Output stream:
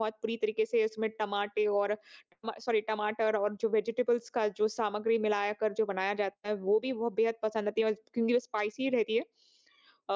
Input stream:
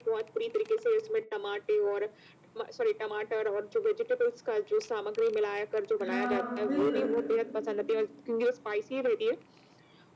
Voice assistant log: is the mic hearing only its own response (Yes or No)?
No